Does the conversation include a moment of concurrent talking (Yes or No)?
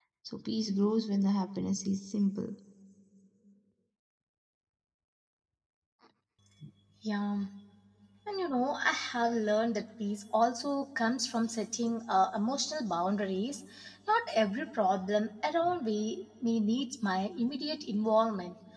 No